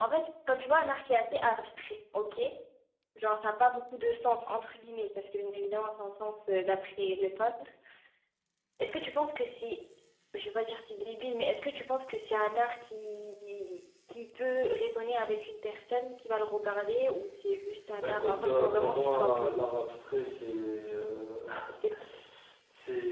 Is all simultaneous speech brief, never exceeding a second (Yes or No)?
No